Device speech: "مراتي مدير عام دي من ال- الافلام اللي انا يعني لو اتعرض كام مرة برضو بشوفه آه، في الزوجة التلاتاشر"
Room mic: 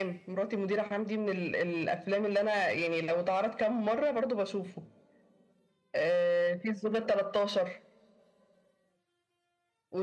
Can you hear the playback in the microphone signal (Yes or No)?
Yes